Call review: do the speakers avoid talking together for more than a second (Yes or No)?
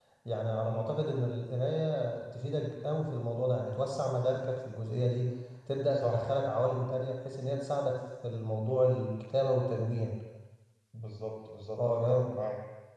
Yes